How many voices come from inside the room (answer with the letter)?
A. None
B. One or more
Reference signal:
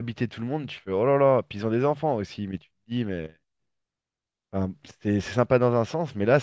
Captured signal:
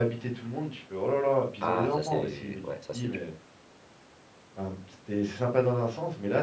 B